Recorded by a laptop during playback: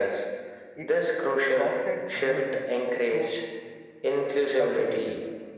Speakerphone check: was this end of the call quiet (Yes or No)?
No